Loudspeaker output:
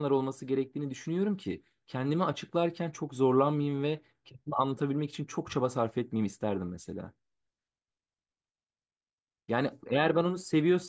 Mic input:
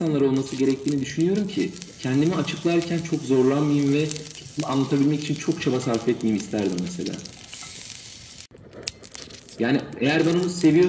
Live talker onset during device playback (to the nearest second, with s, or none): none